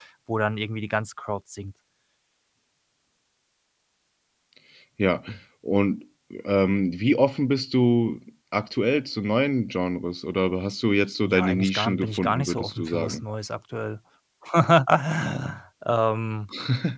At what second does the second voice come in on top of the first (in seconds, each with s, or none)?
11.2 s